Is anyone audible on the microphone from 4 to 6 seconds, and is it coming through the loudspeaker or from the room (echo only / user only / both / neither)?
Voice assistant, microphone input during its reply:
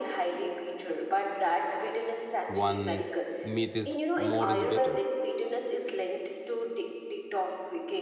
both